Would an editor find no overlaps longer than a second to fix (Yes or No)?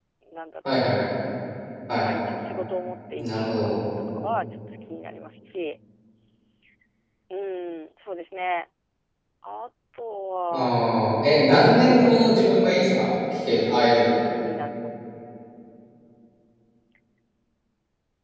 No